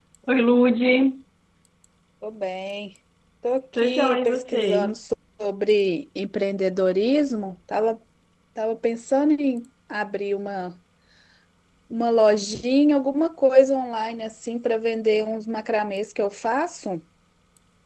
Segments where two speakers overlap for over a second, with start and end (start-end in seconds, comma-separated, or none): 3.7-5.0